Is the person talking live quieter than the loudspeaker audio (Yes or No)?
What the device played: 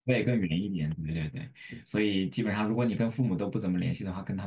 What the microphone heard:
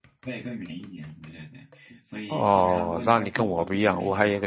No